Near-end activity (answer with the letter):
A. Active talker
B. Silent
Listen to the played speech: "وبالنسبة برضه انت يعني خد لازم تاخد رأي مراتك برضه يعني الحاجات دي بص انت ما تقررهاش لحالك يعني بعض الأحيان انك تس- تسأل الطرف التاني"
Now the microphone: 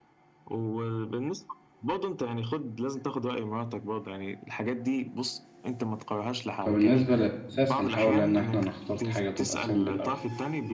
A